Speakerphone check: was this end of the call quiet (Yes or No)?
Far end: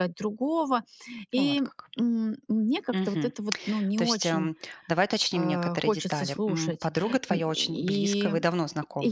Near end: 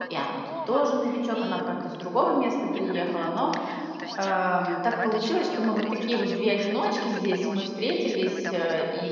No